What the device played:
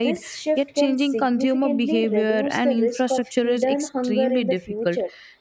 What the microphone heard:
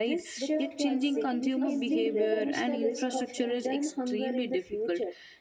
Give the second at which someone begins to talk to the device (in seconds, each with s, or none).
0.4 s